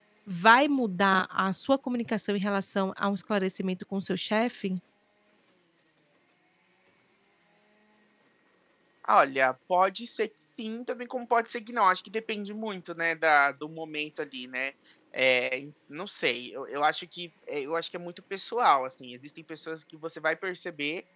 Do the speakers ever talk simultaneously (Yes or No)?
No